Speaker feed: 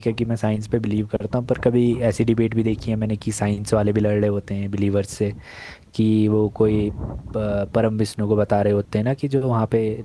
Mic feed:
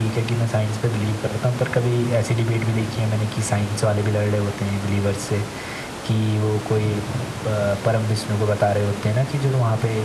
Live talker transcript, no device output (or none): none